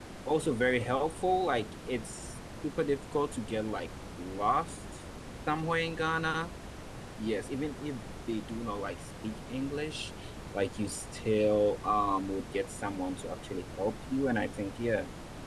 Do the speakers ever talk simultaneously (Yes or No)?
No